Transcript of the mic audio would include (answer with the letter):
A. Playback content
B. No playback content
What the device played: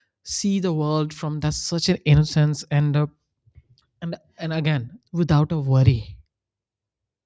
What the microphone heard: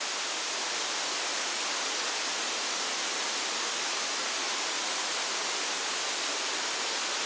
B